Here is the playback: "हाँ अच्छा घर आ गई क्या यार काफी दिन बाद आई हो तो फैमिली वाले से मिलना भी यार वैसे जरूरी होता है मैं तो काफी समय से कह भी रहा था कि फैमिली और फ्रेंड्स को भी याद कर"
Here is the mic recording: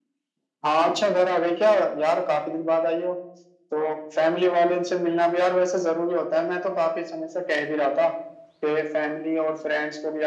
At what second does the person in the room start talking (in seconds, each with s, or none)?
none